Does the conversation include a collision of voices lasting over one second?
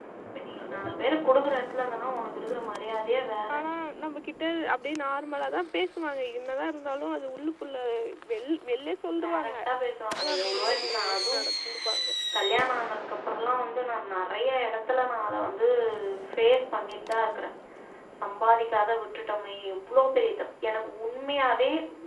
Yes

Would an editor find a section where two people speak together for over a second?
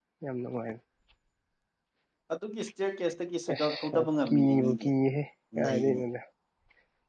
Yes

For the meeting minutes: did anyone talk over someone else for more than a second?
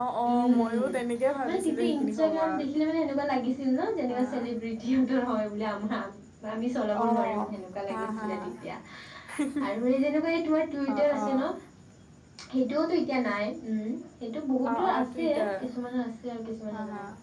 Yes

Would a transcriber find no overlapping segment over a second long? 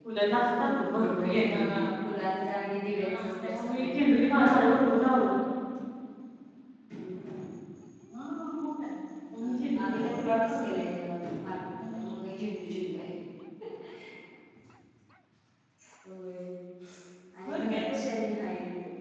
No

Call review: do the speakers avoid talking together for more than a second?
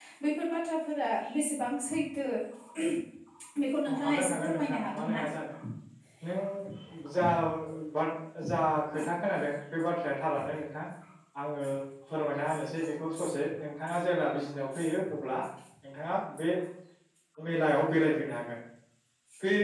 No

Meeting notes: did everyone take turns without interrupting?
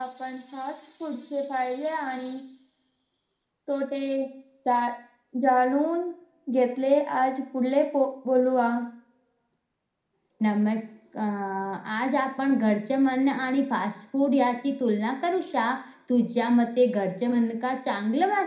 Yes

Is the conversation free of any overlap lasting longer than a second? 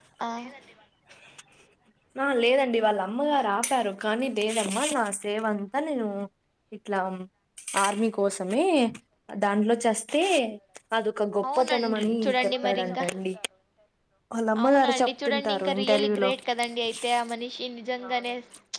No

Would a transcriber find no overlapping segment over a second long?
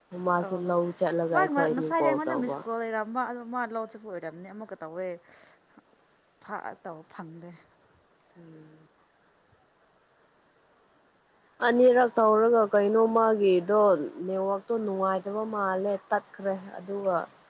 No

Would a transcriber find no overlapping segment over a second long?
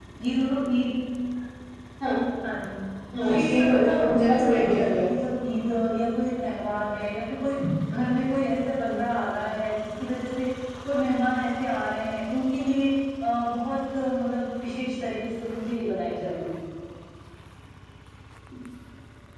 No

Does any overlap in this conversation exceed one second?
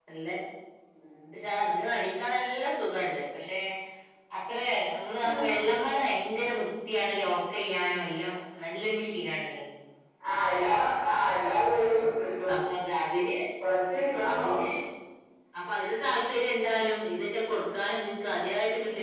No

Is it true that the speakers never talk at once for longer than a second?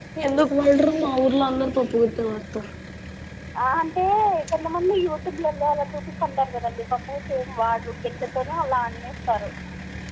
Yes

